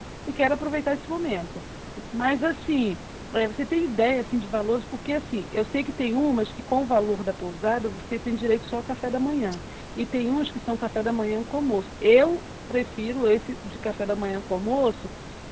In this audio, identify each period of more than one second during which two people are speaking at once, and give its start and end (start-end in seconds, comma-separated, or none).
none